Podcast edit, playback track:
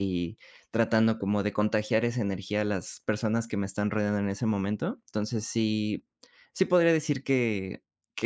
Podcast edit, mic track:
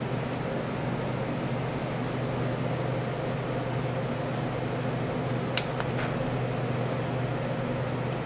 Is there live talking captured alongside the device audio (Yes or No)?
No